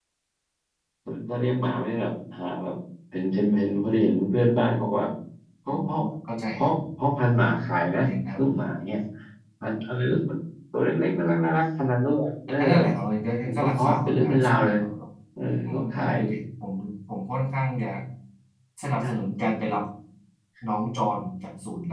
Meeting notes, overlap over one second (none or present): present